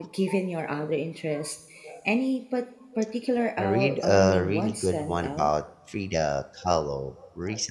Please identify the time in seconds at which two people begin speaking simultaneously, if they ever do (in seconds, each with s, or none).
3.6 s